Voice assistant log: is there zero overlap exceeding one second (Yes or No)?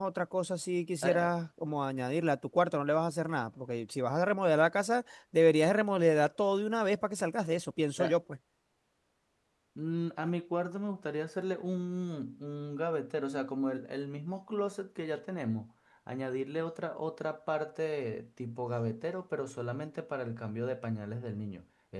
Yes